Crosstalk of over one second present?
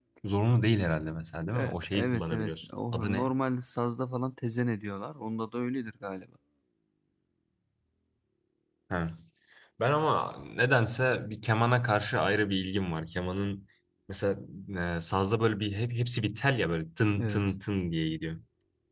Yes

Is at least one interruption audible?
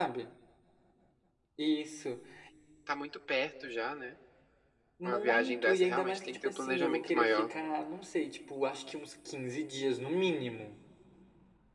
Yes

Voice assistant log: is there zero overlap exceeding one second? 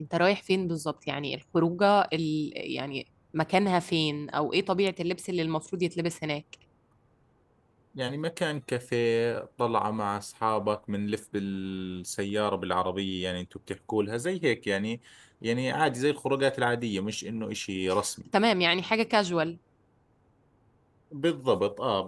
Yes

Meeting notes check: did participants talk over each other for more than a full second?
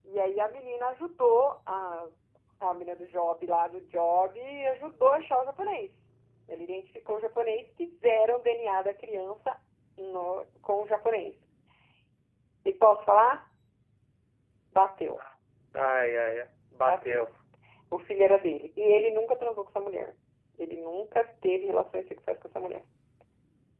No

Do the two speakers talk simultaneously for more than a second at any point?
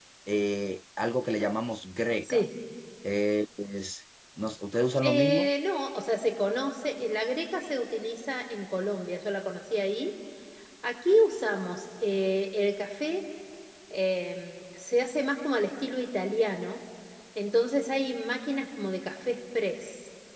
No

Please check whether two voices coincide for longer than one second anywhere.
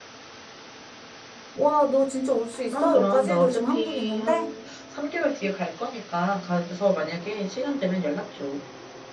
Yes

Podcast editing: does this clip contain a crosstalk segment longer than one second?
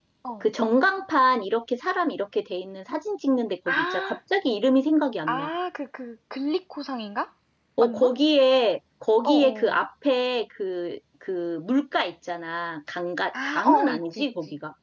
Yes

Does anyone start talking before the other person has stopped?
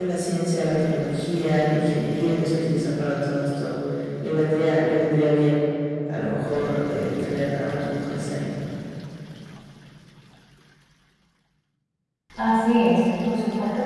No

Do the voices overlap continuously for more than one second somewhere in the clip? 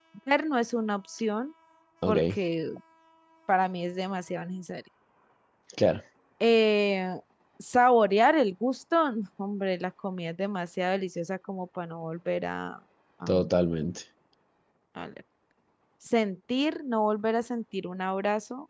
No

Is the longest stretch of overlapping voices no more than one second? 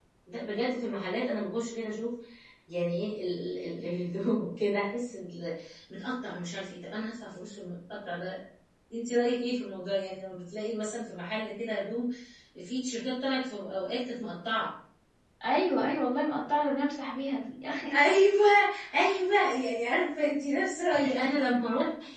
Yes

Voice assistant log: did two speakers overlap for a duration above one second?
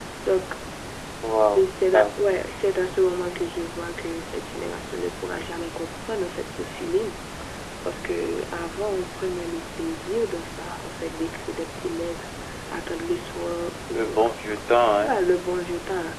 No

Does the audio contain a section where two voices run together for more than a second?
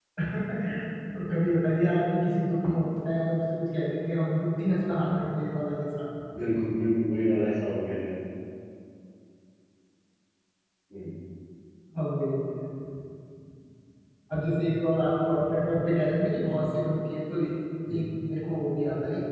No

